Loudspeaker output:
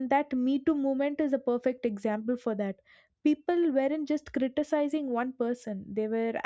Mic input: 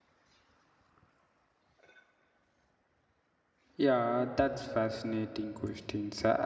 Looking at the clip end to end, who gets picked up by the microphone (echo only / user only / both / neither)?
user only